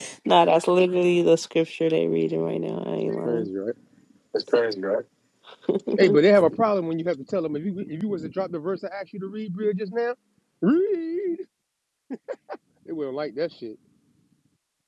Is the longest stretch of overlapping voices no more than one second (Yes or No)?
Yes